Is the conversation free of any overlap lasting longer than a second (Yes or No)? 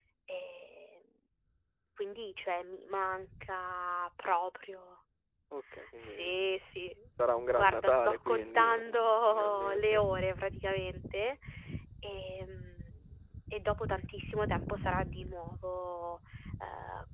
No